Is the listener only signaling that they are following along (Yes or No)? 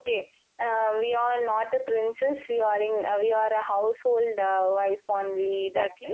No